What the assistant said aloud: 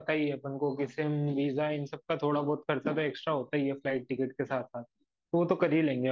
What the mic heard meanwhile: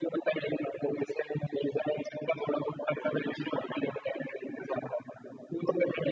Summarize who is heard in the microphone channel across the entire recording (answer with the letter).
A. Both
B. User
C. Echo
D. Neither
C